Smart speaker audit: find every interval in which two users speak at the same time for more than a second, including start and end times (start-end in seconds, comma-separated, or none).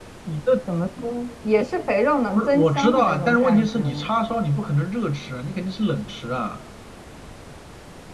2.4-4.1